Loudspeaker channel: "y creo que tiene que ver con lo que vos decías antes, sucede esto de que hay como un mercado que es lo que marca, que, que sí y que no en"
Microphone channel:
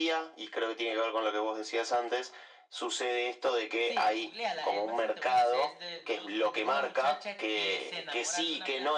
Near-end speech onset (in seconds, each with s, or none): 3.8 s